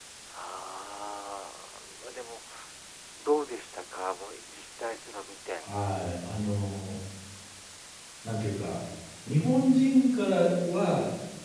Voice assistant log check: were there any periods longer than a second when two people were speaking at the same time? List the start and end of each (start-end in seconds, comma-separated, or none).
none